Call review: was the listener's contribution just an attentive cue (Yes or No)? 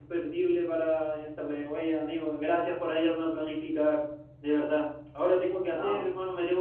Yes